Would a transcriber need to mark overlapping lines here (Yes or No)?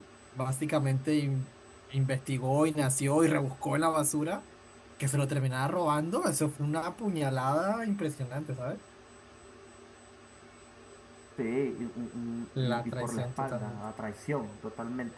Yes